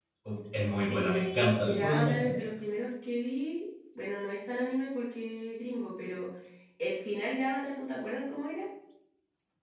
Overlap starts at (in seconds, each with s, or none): 0.8 s